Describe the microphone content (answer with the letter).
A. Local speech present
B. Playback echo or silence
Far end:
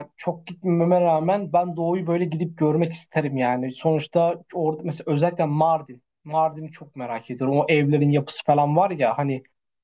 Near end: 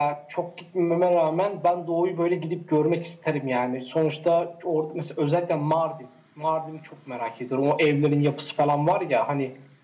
B